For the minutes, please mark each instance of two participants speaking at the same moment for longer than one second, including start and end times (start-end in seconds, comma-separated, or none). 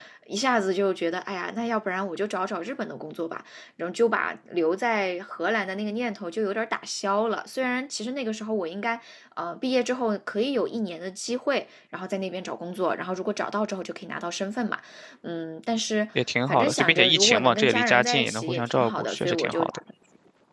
16.5-19.8